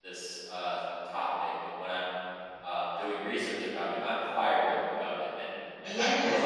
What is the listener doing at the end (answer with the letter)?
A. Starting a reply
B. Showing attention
A